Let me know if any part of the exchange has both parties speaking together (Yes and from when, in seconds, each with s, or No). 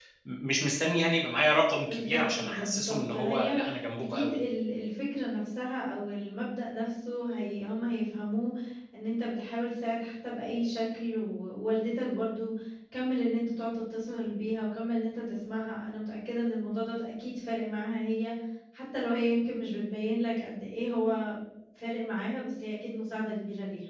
Yes, from 1.9 s